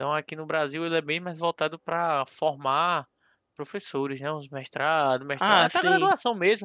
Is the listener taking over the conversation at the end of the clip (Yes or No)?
No